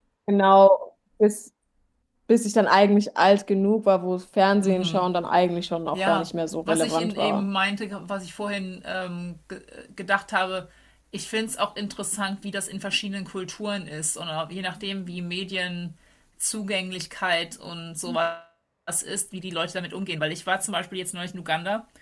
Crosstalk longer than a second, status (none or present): present